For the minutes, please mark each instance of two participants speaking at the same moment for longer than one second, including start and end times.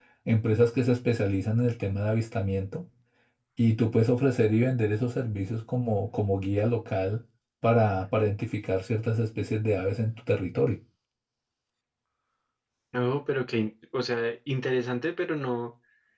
none

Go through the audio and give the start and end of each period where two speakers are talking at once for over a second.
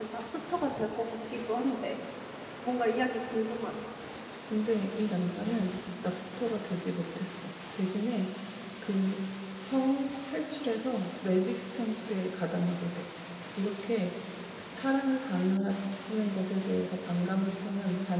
none

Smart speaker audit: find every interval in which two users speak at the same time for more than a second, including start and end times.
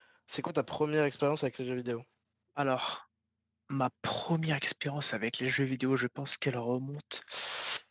none

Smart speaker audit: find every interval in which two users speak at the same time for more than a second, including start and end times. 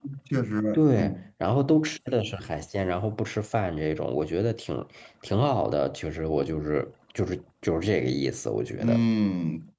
none

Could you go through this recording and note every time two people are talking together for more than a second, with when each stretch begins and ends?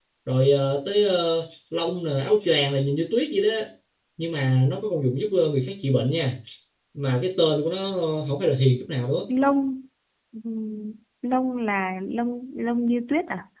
none

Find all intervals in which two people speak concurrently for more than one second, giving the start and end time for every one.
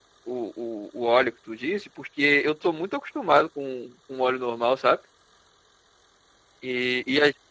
none

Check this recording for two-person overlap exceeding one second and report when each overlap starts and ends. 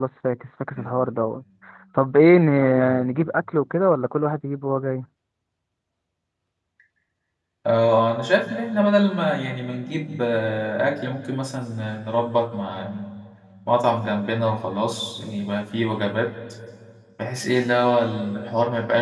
none

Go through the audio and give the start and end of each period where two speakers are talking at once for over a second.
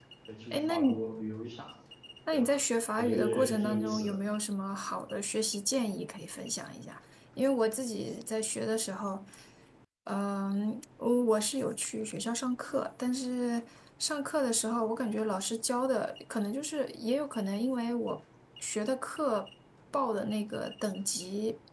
3.0-4.3

